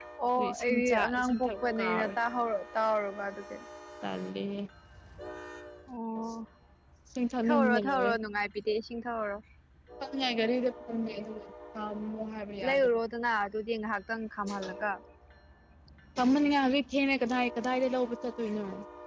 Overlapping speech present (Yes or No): Yes